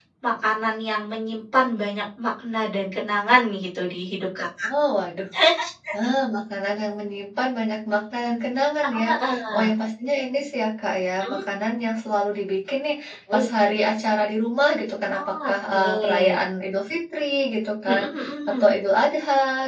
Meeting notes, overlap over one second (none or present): present